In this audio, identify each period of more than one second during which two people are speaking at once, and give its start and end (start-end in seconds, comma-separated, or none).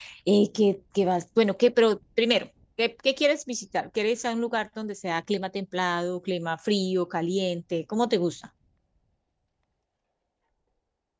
none